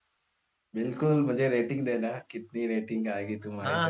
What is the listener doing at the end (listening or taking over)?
taking over